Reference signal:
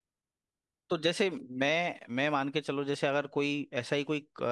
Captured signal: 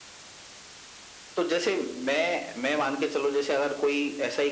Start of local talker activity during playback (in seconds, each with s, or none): none